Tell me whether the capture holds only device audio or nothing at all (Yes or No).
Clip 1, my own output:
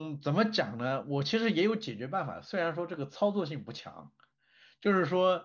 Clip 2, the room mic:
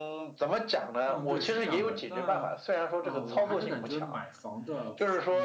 No